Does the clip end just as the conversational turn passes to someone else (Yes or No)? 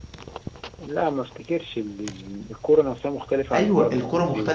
Yes